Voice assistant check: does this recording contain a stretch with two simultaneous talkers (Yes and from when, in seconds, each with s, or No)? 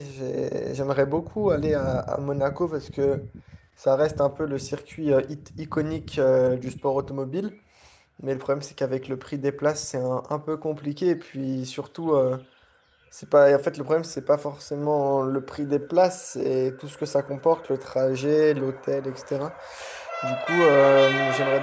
No